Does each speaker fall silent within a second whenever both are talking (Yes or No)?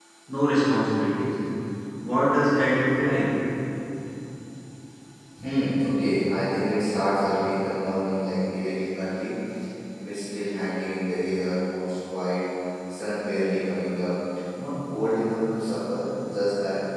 Yes